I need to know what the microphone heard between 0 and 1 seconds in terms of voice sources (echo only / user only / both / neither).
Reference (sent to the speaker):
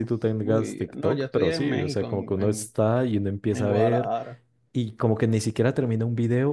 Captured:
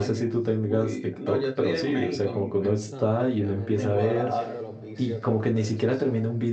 echo only